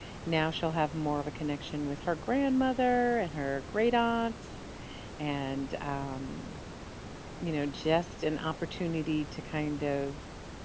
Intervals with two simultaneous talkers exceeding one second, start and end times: none

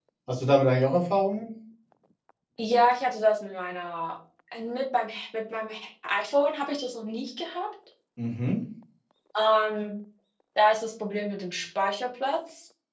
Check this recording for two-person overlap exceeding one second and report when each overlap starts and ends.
none

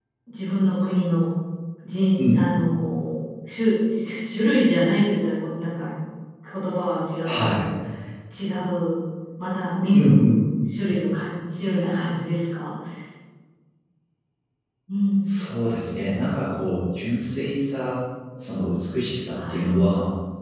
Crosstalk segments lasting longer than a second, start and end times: none

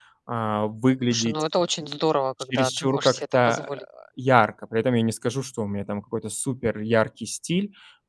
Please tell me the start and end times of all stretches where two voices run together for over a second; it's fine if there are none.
2.5-3.7

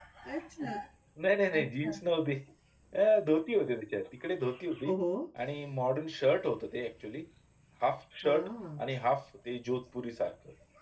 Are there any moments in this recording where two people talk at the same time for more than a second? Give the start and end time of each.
none

